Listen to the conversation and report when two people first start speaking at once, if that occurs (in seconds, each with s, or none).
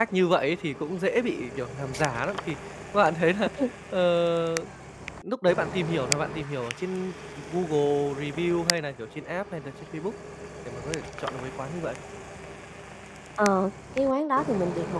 none